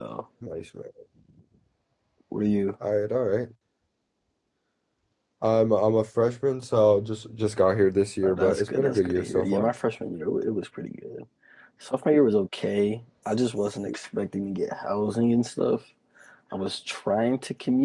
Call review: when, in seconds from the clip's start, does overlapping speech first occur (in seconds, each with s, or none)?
8.2 s